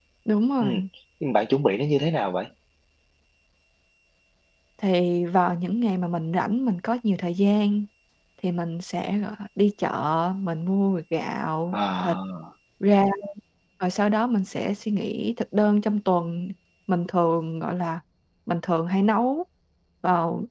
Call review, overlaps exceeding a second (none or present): none